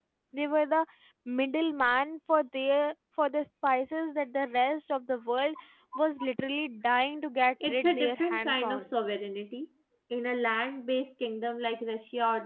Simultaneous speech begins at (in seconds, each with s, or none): 7.6 s